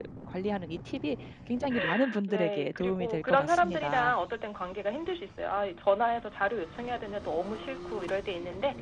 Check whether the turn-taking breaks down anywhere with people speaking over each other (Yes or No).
Yes